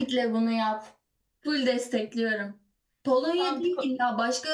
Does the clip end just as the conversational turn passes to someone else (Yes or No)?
No